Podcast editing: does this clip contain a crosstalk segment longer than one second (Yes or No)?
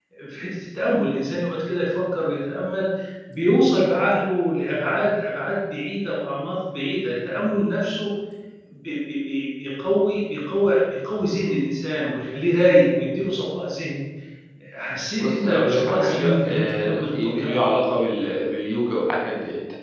Yes